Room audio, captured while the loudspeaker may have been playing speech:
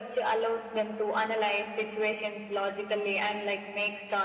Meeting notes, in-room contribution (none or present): none